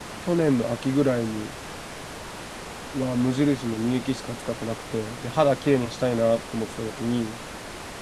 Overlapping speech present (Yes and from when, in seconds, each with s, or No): No